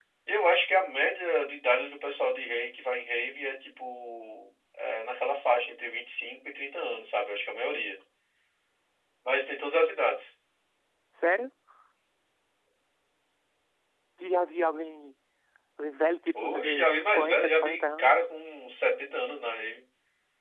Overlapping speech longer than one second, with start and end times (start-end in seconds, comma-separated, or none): 16.4-18.1